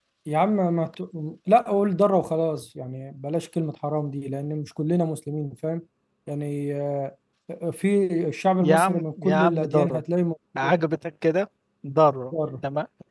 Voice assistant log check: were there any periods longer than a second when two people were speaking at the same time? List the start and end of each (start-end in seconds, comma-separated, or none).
8.6-10.0